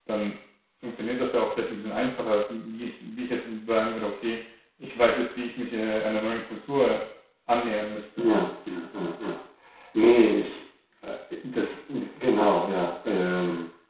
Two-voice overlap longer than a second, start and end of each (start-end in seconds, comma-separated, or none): none